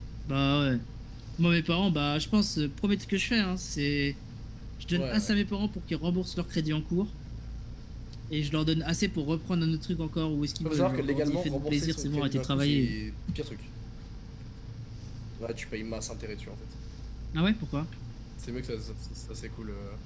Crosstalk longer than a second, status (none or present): present